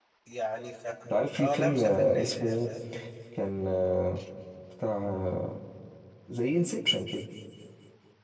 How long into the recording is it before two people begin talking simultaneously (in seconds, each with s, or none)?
1.4 s